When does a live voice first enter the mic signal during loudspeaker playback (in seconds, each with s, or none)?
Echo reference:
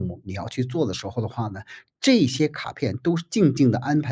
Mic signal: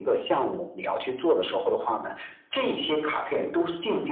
none